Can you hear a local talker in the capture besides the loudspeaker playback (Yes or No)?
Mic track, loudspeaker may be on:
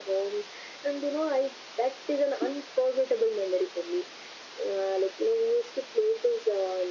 No